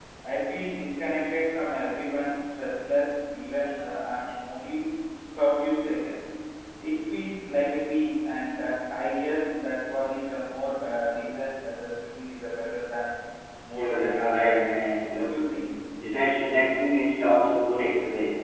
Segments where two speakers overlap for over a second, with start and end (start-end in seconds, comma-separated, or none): 13.8-15.2